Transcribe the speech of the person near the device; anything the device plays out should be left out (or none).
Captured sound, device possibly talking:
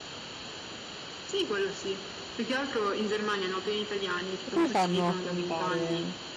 E come fanno a comunicare?